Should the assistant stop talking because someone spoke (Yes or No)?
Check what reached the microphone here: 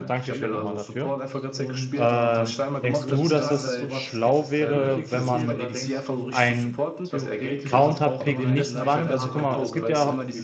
Yes